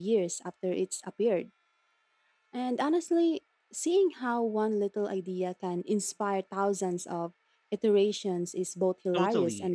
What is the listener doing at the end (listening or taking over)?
taking over